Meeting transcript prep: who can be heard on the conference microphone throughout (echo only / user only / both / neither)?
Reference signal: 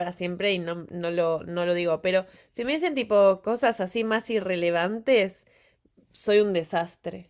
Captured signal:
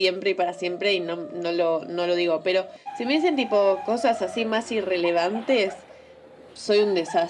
echo only